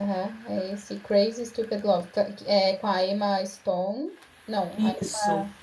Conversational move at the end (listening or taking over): listening